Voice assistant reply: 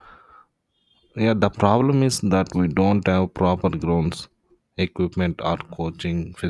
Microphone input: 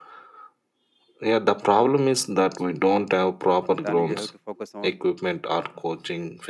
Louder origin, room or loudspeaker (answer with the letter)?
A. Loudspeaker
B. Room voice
A